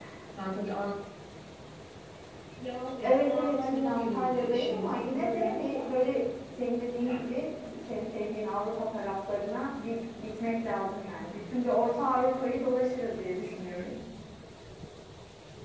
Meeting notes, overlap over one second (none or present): present